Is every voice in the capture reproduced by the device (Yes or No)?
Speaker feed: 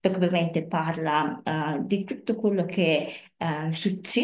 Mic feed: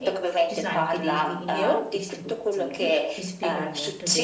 No